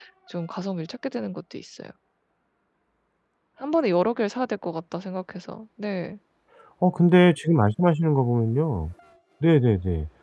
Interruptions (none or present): none